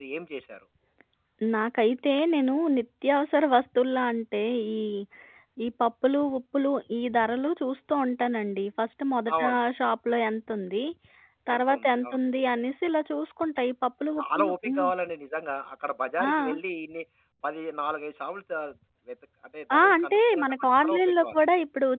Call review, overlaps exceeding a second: present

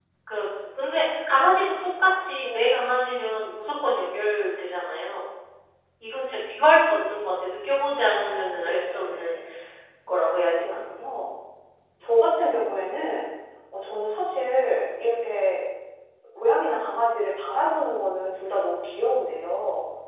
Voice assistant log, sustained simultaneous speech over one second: present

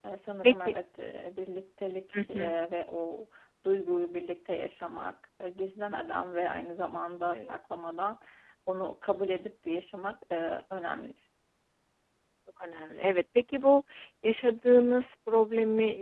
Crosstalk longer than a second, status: none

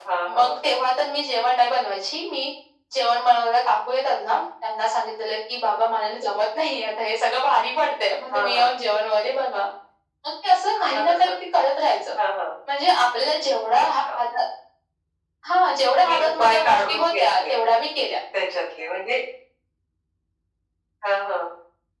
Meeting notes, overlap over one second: present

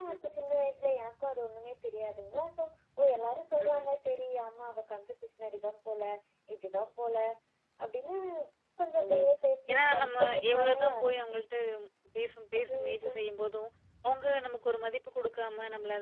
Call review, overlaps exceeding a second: present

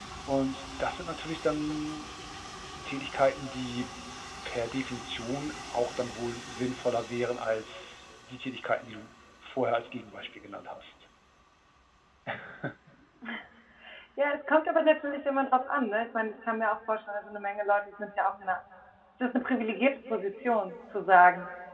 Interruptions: none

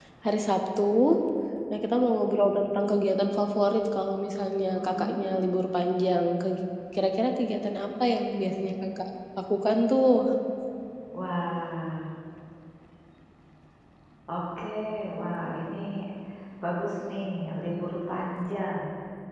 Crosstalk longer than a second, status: none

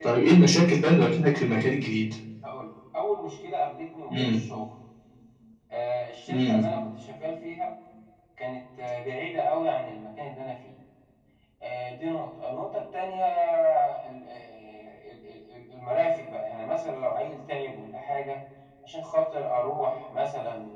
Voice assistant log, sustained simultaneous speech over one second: none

